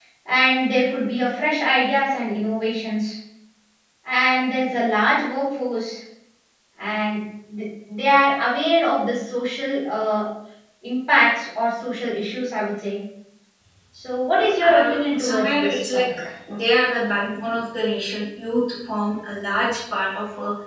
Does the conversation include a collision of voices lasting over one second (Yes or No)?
Yes